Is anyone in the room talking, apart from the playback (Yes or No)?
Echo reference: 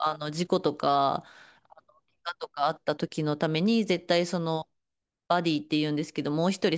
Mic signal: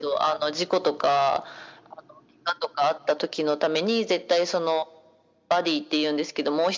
No